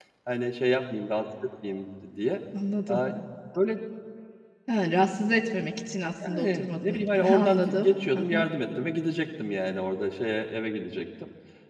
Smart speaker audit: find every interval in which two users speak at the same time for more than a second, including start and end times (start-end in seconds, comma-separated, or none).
6.3-8.5